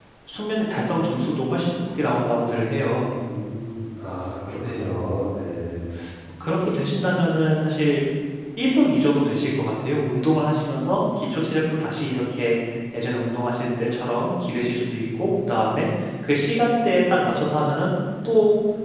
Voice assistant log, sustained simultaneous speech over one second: none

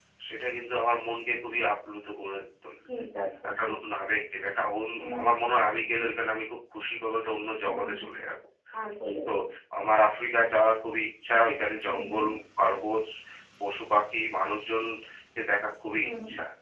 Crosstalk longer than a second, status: none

